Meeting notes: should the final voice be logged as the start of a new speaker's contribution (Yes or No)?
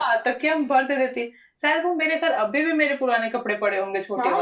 Yes